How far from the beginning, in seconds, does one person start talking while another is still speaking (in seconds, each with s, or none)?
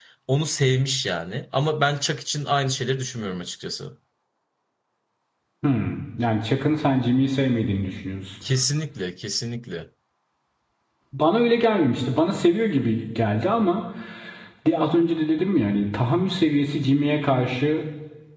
none